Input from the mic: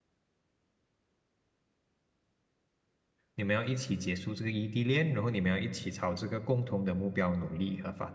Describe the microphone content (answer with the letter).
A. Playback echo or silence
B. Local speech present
B